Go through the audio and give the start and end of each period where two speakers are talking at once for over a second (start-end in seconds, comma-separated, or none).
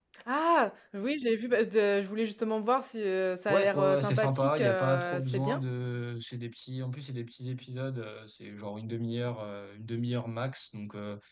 3.5-5.6